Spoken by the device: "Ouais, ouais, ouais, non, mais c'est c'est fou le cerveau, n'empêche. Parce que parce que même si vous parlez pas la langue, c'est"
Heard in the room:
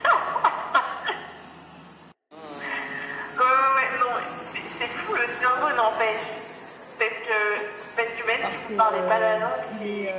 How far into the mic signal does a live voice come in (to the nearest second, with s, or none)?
8 s